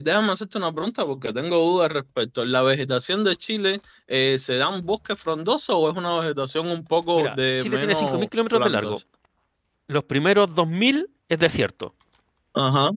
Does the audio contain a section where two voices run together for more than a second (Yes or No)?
Yes